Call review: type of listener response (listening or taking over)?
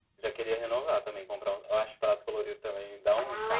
taking over